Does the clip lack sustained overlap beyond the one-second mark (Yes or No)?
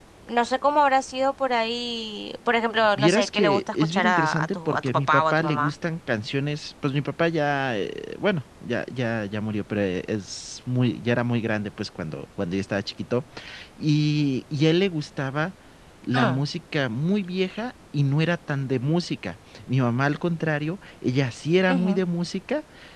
No